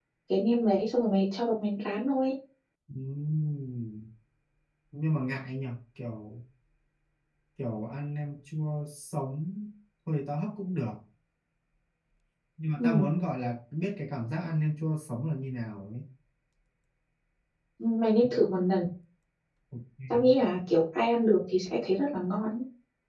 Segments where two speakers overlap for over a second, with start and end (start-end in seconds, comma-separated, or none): none